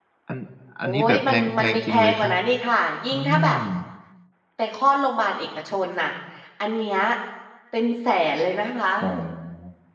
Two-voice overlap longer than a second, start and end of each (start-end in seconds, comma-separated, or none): 0.8-2.3